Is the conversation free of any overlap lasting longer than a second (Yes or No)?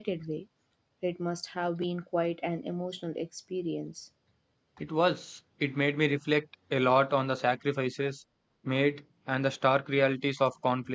Yes